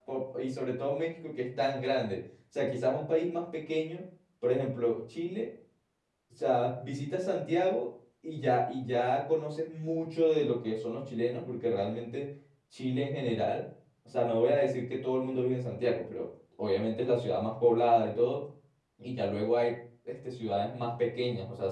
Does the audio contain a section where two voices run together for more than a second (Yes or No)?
No